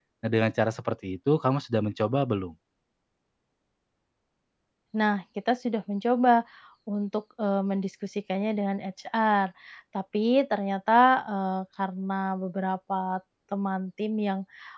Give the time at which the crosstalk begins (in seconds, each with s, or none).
none